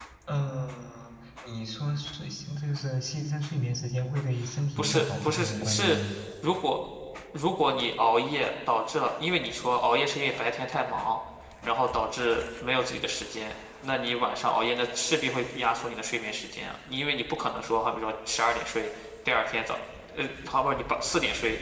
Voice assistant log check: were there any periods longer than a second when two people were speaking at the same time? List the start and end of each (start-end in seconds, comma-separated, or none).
4.8-6.0